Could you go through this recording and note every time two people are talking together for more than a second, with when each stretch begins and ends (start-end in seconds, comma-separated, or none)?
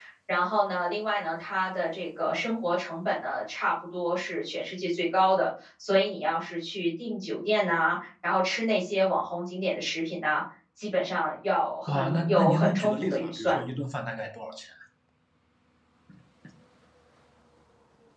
11.9-13.6